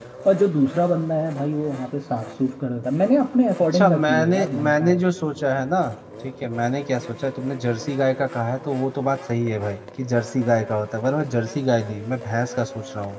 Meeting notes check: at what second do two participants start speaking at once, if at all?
3.7 s

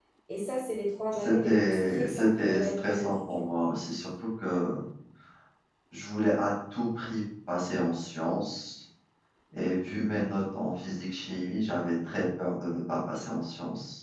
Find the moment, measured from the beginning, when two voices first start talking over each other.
1.1 s

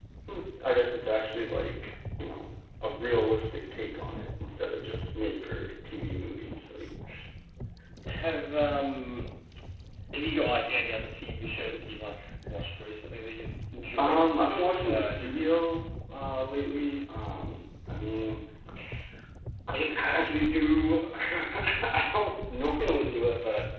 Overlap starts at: 14.0 s

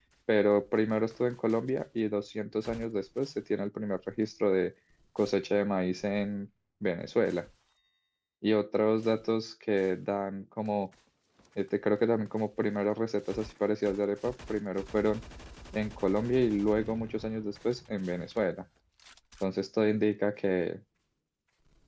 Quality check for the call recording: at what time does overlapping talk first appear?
none

